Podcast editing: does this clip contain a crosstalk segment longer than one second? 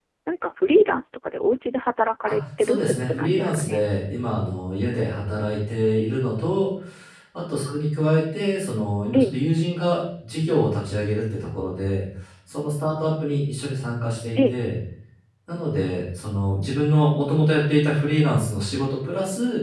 Yes, from 2.3 s

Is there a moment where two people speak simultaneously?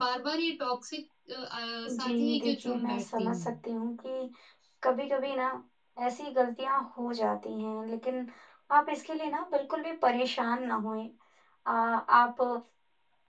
Yes, from 1.8 s

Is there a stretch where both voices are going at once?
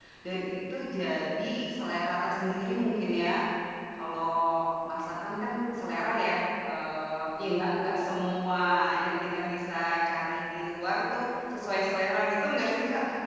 No

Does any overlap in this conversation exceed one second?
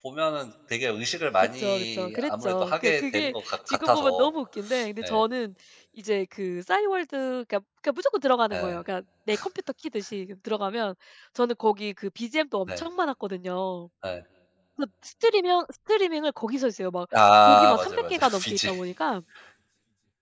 Yes, from 1.6 s

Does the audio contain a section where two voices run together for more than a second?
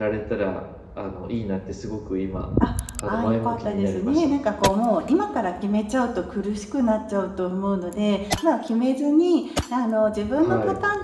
Yes, from 3.1 s

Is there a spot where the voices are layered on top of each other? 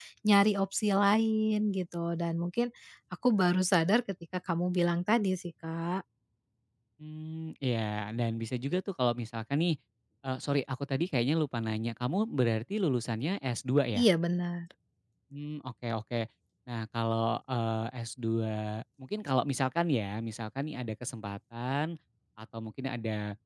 No

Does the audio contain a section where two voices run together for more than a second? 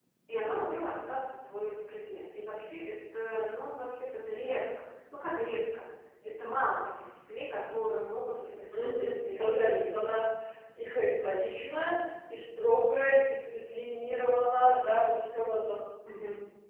Yes, from 8.7 s

